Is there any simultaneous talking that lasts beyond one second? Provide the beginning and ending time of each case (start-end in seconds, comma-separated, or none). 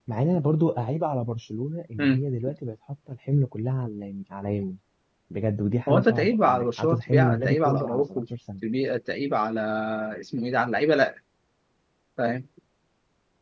5.9-8.2